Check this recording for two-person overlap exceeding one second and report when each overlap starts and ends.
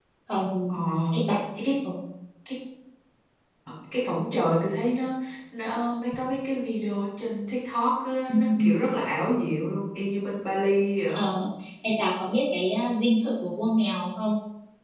none

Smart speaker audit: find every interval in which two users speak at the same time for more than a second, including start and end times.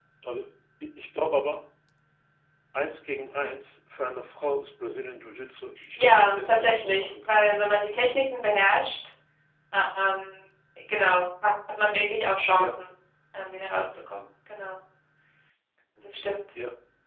6.0-7.4

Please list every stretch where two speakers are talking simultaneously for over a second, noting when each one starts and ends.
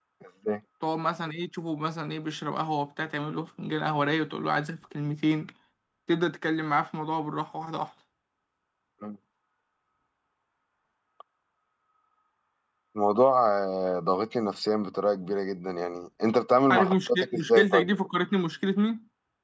16.7-18.0

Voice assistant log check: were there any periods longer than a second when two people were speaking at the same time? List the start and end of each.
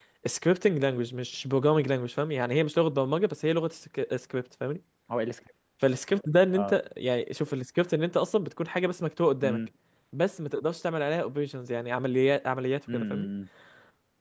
none

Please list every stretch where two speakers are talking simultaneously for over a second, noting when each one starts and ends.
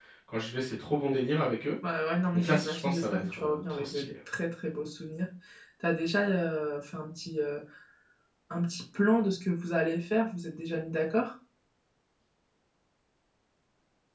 2.3-4.1

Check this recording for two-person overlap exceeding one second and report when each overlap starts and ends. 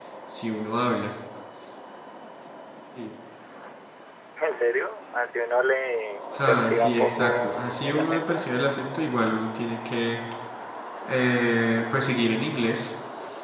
6.5-8.5

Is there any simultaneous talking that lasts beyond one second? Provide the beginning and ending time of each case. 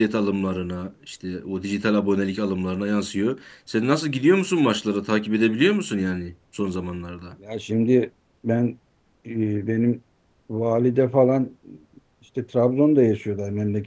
none

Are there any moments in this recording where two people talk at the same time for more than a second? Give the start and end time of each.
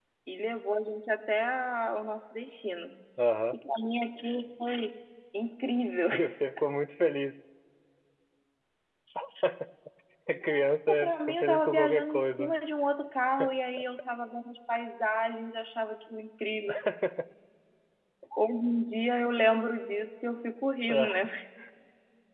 10.9-12.6

